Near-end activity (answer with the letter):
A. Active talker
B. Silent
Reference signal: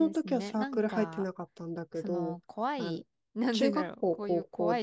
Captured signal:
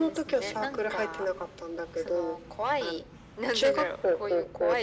B